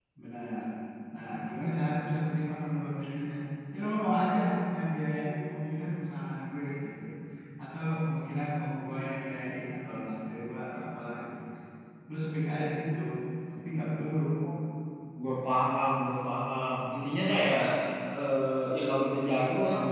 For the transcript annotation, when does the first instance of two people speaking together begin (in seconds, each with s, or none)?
none